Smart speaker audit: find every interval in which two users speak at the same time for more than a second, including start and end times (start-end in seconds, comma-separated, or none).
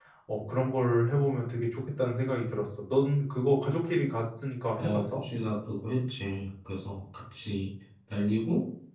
none